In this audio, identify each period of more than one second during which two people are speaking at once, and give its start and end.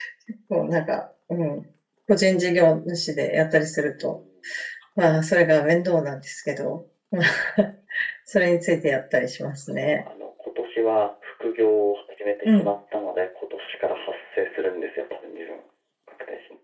none

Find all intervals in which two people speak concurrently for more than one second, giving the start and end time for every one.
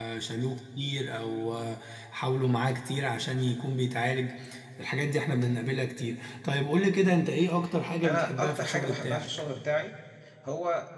8.0-9.3

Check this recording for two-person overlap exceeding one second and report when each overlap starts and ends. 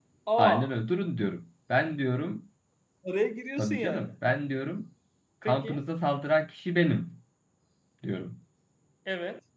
none

